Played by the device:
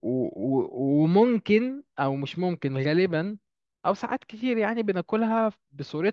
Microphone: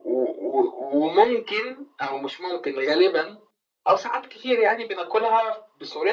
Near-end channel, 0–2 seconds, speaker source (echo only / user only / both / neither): echo only